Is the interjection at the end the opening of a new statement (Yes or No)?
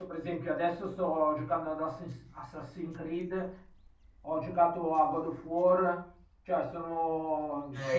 Yes